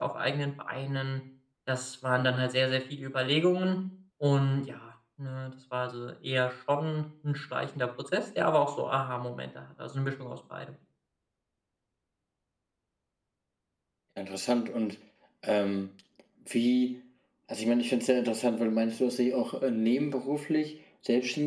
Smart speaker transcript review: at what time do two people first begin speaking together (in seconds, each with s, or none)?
none